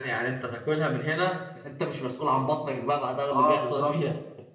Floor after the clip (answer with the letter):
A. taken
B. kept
A